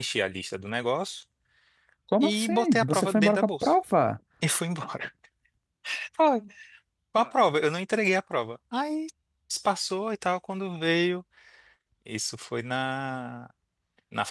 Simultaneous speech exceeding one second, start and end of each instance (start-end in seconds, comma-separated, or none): 2.2-3.7